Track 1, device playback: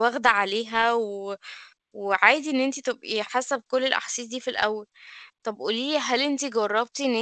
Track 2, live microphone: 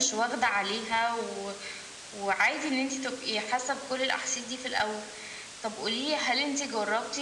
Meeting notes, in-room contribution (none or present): none